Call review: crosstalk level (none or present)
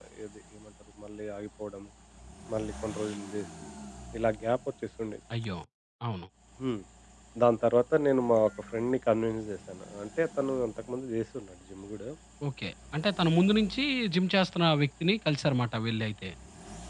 none